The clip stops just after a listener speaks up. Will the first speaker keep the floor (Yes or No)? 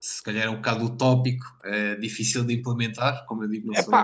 Yes